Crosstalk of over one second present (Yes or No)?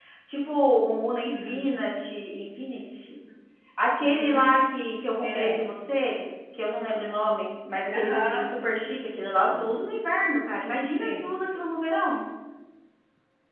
No